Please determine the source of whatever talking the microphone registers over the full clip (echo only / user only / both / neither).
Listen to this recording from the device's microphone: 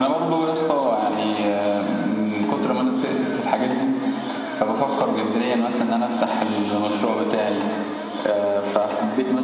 echo only